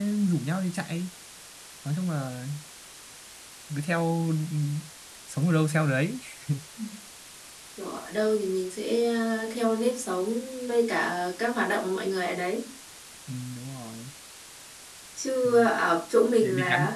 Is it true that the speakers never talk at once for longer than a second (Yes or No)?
Yes